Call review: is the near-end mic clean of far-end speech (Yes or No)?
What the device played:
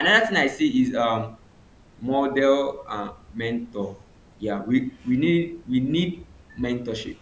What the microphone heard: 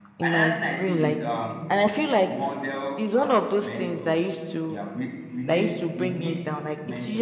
No